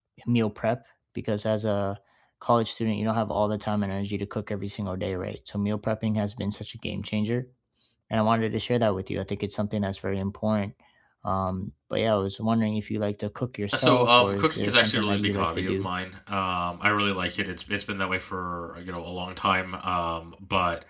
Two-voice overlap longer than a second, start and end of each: 13.7-15.9

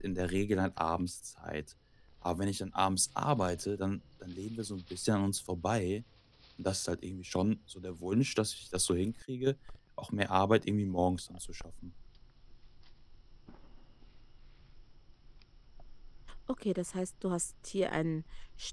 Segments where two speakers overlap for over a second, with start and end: none

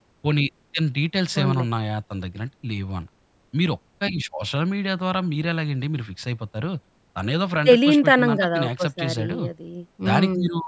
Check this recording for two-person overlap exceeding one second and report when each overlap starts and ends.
7.7-9.4

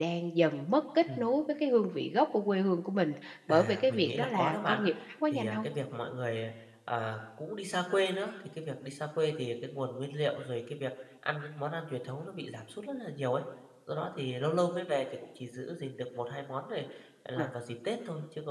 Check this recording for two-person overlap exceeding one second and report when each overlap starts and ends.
3.5-4.8

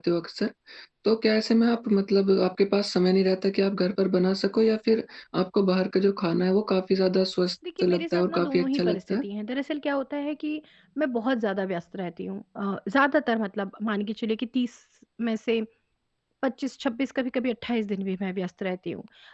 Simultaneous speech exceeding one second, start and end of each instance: 7.8-9.0

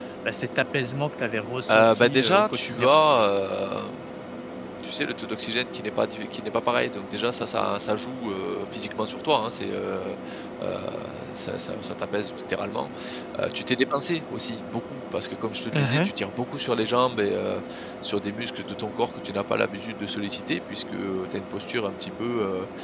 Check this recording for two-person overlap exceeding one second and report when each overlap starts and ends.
1.7-2.9

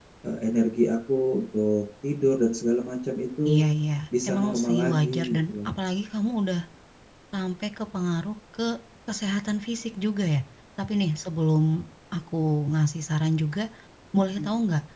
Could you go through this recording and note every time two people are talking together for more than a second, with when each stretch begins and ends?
4.3-5.7

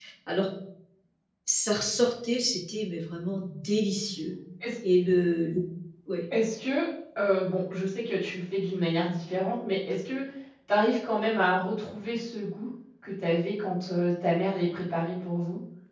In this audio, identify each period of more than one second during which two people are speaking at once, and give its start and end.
none

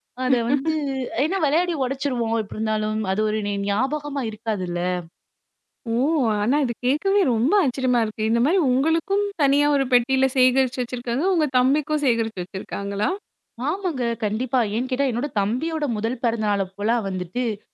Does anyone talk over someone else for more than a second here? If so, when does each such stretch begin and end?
none

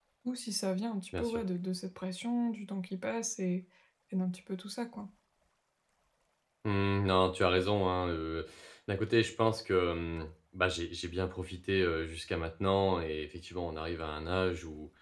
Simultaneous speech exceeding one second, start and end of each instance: none

